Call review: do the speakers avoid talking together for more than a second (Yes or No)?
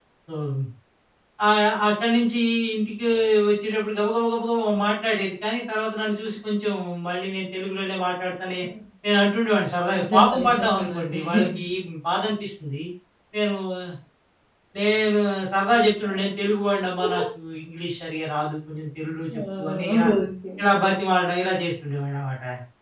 No